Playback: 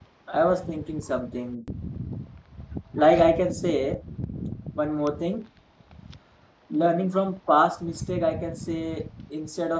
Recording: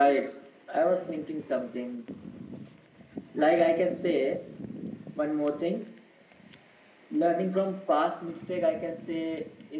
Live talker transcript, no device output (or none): none